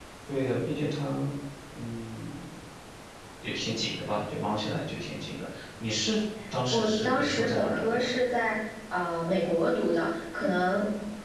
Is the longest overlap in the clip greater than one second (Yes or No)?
Yes